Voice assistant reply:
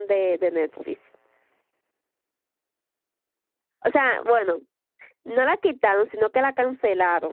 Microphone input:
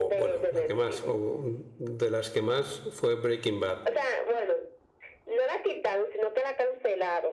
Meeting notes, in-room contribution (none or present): present